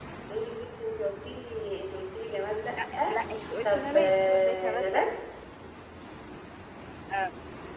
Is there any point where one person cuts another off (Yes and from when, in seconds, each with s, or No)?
Yes, from 3.6 s